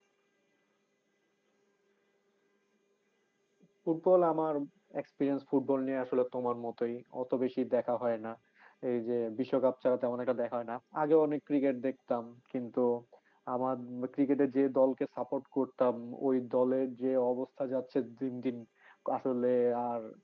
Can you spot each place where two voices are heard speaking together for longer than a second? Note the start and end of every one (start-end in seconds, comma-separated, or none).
none